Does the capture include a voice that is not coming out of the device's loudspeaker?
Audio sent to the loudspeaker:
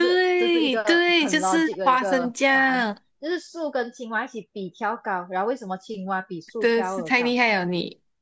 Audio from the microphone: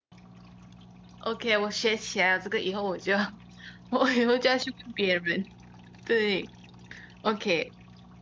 Yes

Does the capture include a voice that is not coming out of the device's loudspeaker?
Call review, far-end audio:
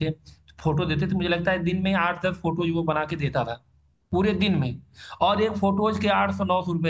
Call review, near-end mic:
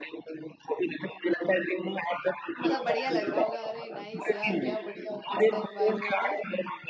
Yes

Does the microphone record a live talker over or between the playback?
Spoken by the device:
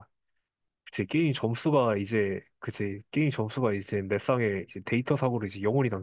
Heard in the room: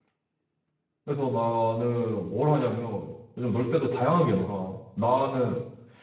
Yes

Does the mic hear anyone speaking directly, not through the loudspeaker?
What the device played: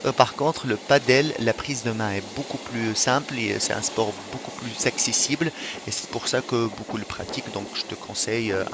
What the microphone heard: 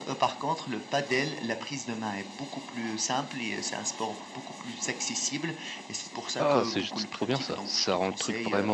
Yes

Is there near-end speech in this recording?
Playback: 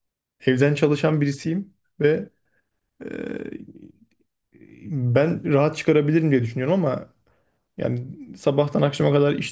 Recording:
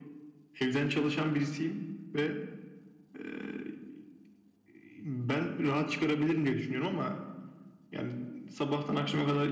No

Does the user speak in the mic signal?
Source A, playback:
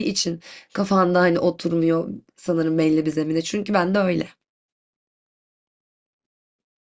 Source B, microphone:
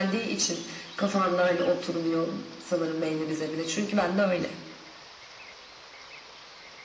No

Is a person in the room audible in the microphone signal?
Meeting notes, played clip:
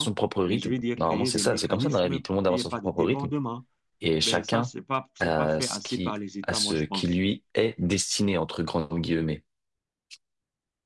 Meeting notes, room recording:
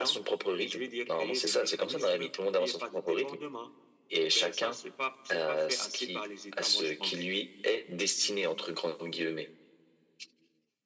No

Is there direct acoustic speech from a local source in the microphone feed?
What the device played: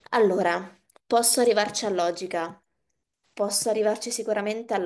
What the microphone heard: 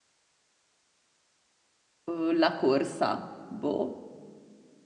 Yes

